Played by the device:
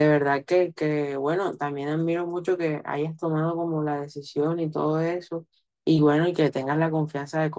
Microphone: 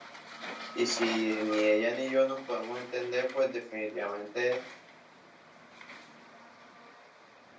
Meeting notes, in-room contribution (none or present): present